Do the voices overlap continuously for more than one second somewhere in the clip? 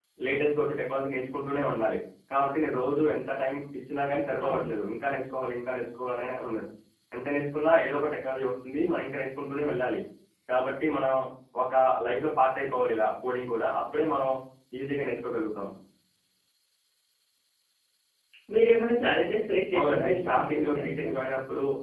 Yes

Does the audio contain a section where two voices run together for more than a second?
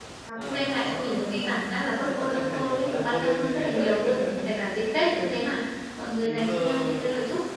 Yes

